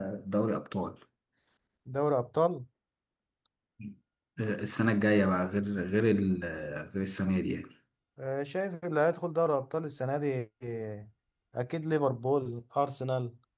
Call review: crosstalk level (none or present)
none